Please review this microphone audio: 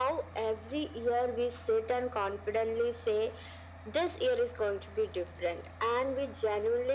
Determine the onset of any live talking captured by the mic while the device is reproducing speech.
none

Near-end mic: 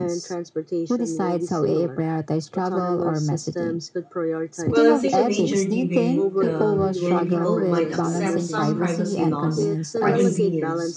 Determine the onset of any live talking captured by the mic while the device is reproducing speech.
5 s

